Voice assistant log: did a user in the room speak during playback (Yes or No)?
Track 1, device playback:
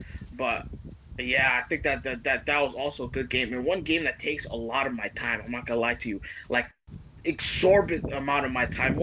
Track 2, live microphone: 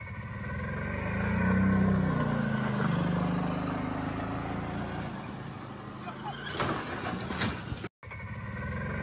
No